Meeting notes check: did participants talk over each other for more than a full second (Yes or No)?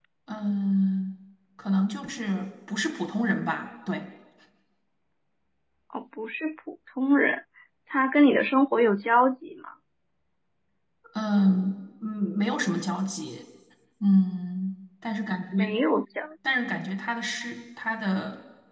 No